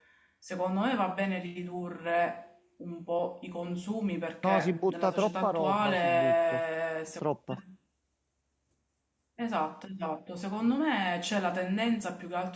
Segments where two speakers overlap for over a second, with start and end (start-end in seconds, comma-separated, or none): 4.5-6.6